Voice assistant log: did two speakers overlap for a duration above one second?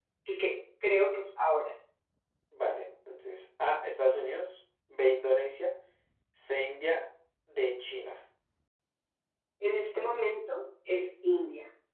No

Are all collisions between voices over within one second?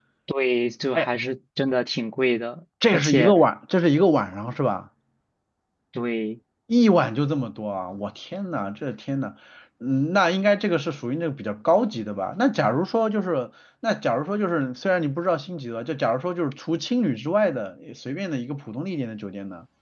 Yes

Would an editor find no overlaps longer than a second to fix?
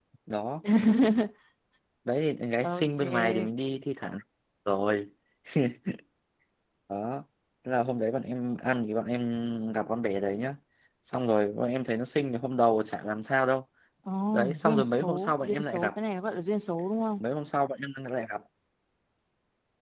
No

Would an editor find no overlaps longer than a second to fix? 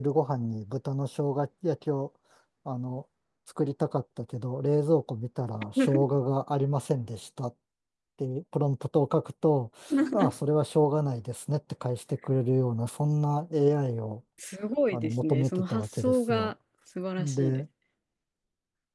No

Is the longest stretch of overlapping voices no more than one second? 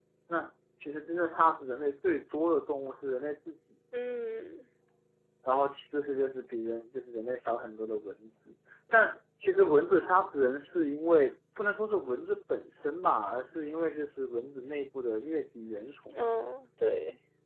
Yes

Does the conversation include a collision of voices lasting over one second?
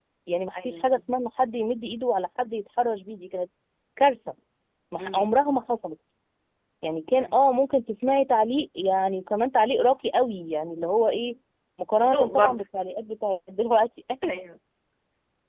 No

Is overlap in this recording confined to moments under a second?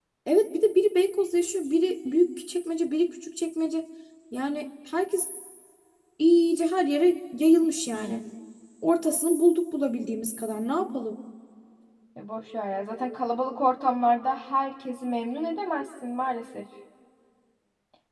Yes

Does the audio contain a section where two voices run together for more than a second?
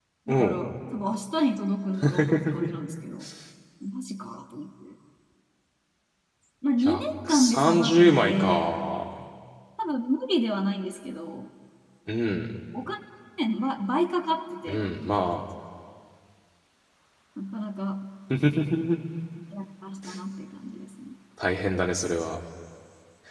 Yes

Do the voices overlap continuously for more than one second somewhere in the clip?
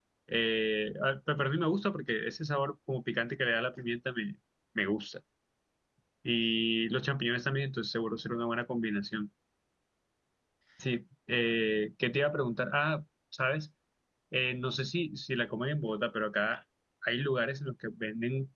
No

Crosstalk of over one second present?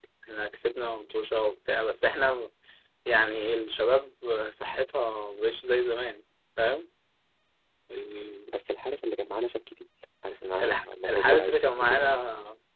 Yes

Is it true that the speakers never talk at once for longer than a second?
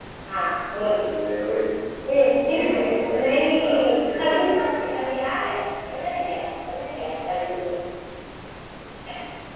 No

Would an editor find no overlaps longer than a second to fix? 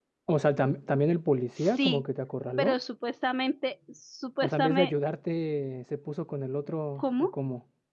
Yes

